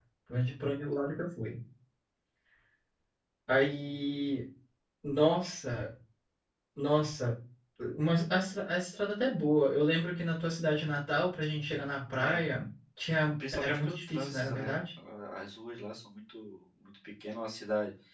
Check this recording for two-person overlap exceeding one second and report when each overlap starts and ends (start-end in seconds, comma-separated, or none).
13.5-14.8